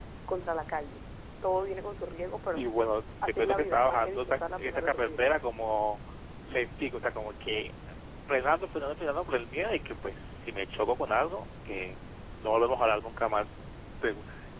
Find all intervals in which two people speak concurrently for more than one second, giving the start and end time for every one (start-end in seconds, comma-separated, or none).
3.2-5.4